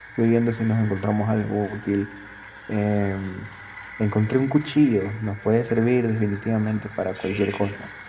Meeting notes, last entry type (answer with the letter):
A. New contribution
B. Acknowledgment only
A